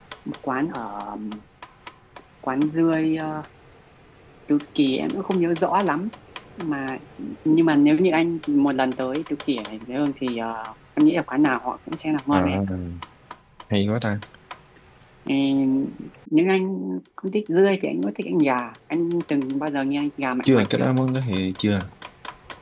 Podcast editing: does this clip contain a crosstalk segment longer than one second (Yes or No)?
No